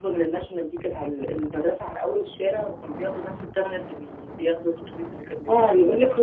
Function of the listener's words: taking over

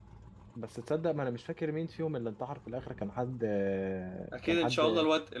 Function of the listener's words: taking over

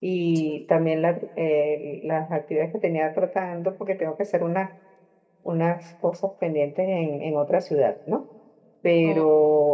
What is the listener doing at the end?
listening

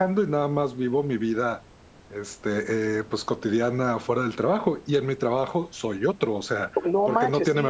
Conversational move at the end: taking over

